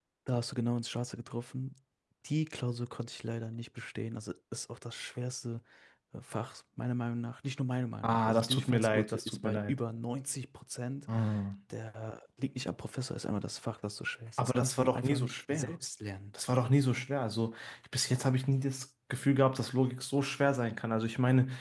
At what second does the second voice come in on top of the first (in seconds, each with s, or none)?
8.0 s